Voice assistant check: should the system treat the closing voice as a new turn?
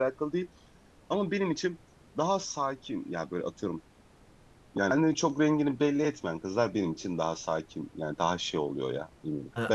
Yes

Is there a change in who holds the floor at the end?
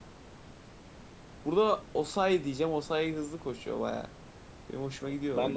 Yes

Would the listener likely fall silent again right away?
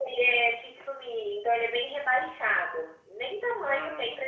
Yes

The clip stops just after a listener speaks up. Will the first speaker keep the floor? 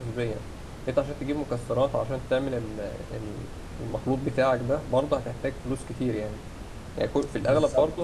Yes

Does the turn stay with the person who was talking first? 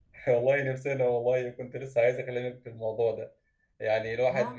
Yes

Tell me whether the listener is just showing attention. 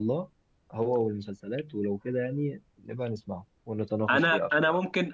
No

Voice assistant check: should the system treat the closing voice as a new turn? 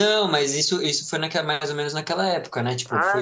Yes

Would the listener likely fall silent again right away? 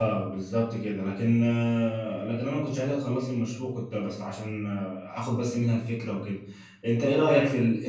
No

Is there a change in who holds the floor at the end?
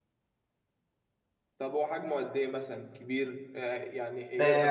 Yes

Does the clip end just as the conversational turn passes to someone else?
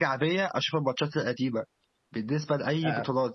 No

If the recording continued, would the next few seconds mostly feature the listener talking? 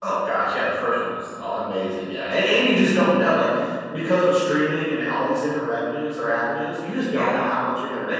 No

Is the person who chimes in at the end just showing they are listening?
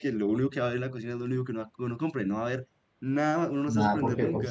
No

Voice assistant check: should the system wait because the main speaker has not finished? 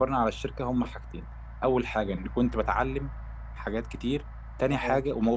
Yes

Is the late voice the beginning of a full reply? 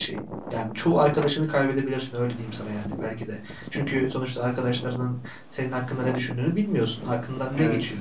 No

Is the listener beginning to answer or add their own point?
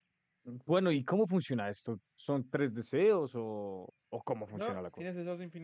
Yes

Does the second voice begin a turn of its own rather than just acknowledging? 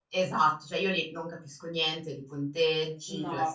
No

